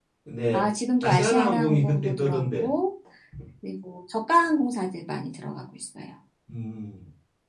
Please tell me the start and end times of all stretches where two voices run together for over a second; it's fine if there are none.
1.0-2.7

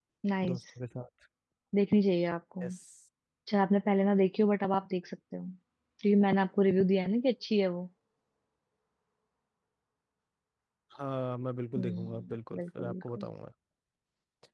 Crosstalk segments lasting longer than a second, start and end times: 11.8-13.2

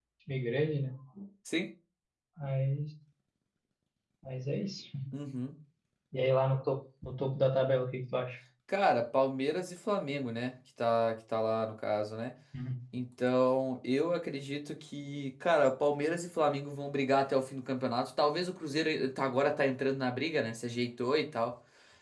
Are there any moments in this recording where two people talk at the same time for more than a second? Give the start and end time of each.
none

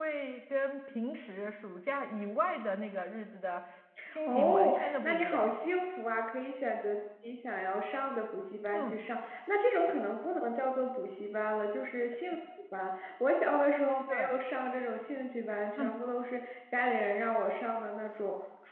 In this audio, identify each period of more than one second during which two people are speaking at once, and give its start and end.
4.3-5.6

